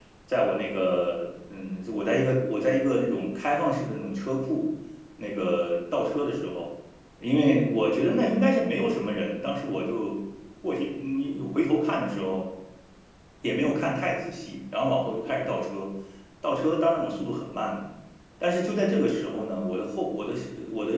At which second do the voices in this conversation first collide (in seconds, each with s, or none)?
none